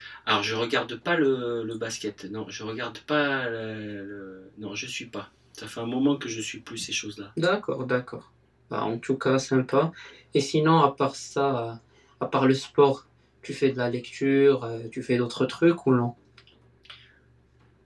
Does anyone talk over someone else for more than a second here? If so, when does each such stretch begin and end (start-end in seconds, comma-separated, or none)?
none